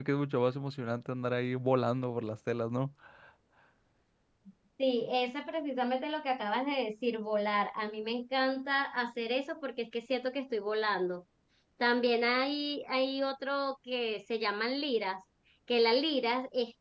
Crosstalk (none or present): none